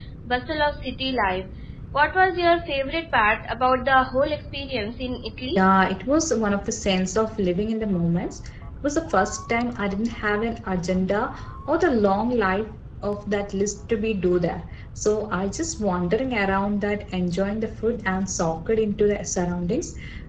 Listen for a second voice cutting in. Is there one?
No

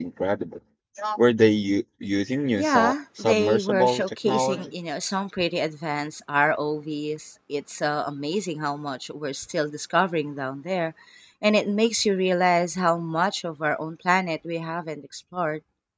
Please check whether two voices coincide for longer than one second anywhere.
Yes, from 2.6 s

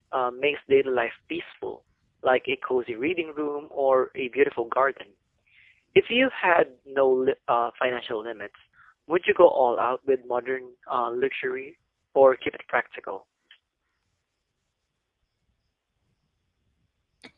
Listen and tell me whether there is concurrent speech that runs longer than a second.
No

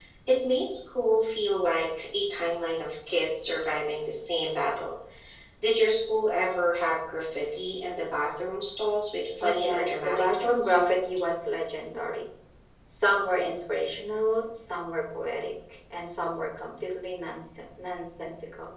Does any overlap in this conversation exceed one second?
Yes, from 9.4 s

